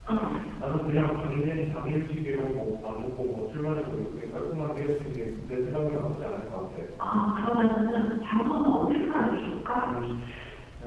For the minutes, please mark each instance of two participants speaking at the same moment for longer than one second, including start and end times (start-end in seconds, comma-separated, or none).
none